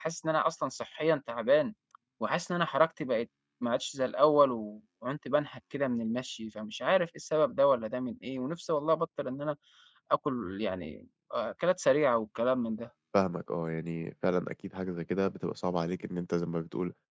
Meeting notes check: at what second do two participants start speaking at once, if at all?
none

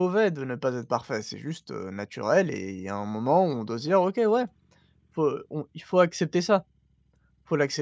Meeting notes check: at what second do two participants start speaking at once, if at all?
none

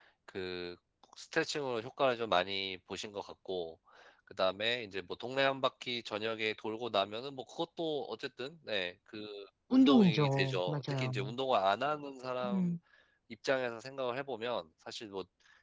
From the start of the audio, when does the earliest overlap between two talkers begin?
9.7 s

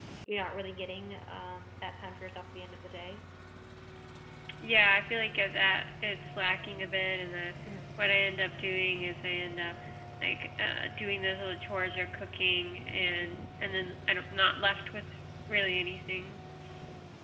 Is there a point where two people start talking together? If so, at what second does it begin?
none

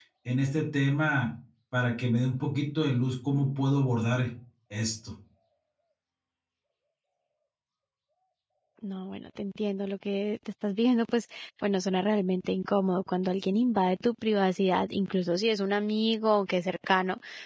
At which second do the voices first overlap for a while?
none

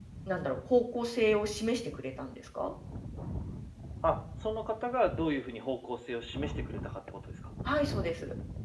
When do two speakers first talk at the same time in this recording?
none

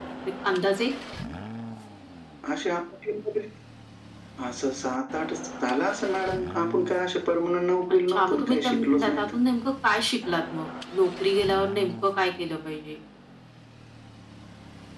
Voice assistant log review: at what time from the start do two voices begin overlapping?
8.1 s

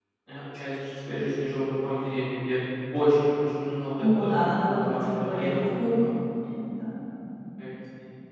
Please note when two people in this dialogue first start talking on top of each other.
4.0 s

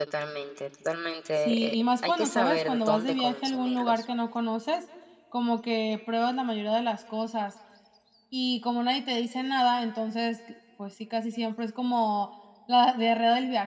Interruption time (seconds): 1.4 s

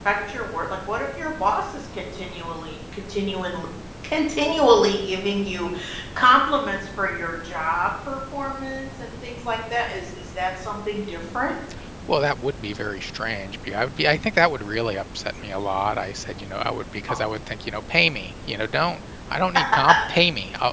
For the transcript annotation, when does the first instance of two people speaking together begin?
none

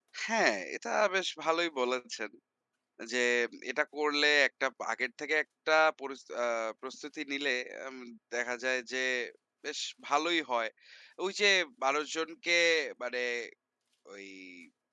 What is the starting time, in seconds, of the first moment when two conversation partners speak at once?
none

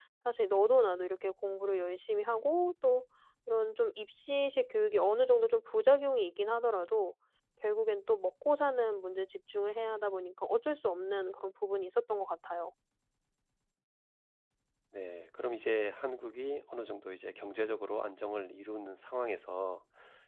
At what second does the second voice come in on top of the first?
none

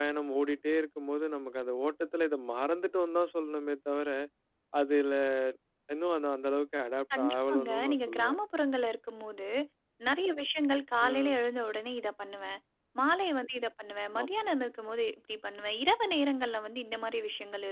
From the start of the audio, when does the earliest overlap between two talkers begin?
7.2 s

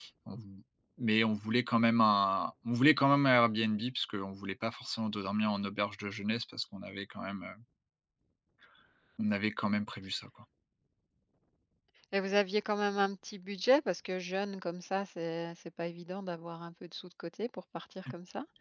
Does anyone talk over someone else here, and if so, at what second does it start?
none

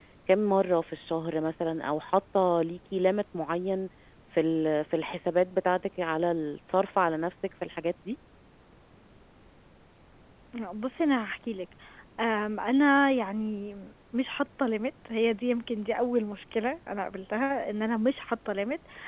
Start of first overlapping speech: none

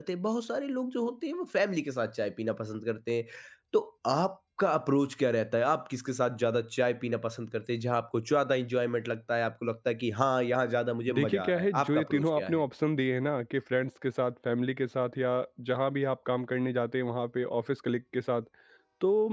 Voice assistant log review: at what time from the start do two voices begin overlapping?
11.1 s

